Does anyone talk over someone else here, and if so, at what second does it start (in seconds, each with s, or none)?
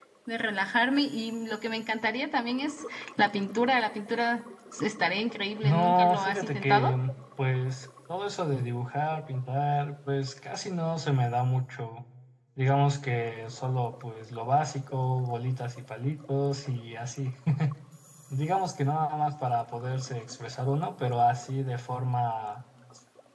5.6 s